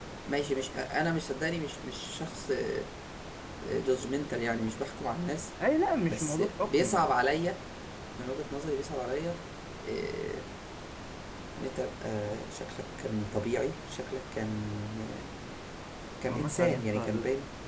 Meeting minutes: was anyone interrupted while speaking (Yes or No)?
Yes